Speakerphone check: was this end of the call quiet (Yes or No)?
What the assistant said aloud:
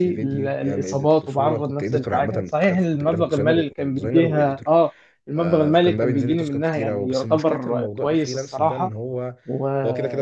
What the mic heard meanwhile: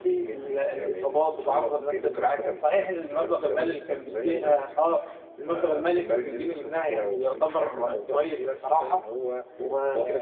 Yes